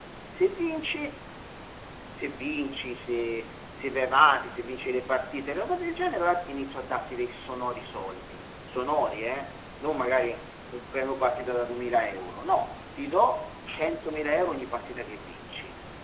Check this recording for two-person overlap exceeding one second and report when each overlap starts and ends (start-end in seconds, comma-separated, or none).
none